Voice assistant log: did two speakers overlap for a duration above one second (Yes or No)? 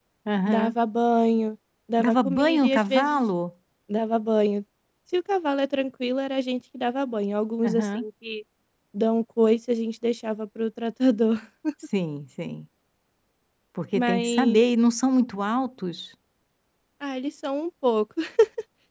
Yes